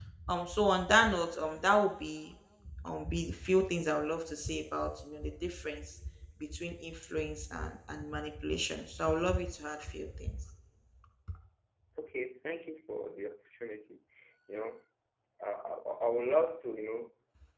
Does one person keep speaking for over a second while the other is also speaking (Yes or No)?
No